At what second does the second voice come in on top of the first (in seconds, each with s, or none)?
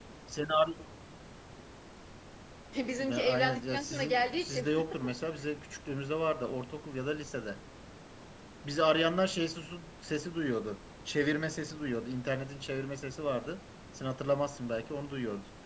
3.0 s